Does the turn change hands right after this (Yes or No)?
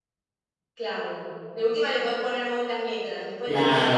Yes